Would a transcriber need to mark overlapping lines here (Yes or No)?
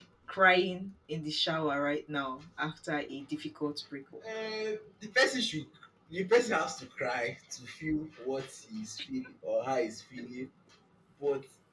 No